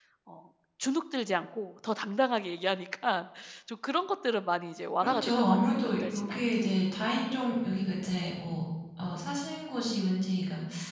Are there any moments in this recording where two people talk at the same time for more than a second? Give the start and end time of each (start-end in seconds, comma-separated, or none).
5.0-6.4